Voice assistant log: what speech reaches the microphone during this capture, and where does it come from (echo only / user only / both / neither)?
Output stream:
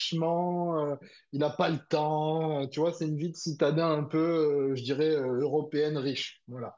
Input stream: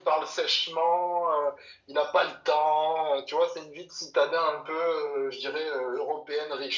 echo only